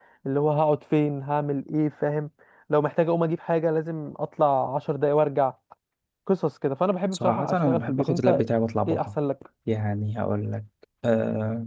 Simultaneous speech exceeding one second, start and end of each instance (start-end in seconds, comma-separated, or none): 7.1-8.4